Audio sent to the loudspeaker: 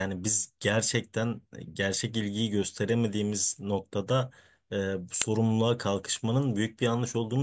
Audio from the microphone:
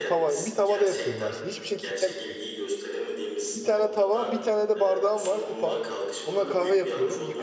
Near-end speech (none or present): present